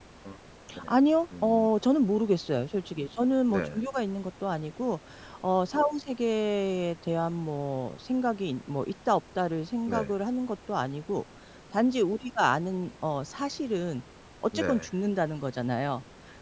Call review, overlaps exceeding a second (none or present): none